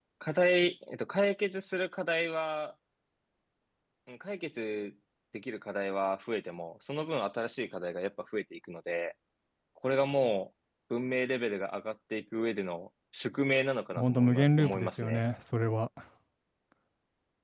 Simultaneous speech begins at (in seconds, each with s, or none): 14.0 s